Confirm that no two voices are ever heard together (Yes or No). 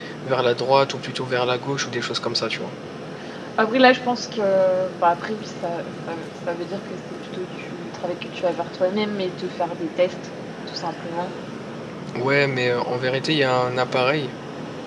Yes